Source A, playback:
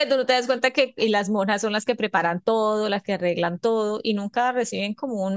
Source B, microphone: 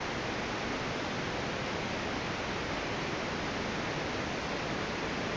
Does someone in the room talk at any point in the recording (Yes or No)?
No